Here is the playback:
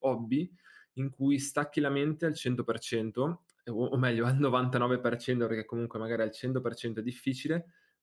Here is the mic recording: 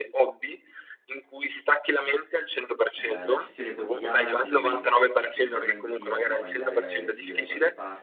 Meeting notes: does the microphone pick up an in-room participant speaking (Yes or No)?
Yes